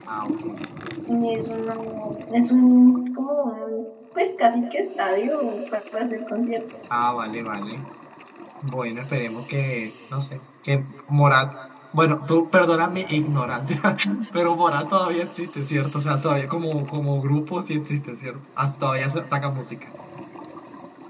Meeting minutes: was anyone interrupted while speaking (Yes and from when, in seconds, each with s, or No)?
No